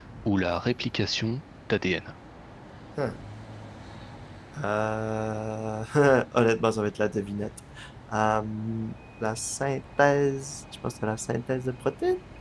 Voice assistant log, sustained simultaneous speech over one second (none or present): none